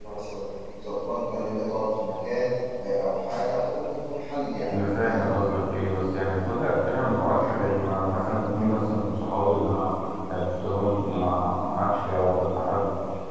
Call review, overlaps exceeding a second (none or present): none